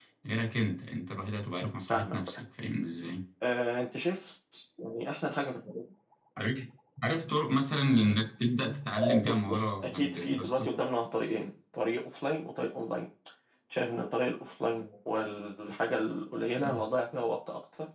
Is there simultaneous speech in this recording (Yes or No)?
Yes